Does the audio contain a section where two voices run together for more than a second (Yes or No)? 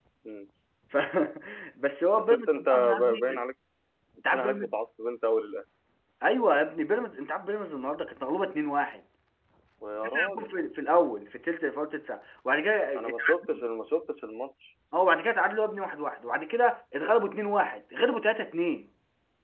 Yes